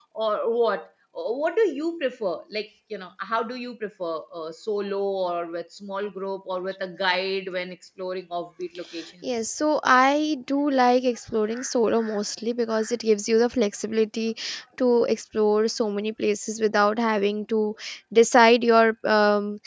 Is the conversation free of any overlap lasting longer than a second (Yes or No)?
Yes